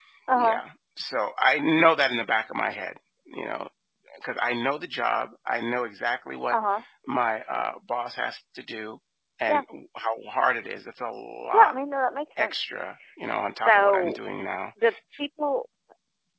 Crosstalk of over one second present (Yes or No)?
No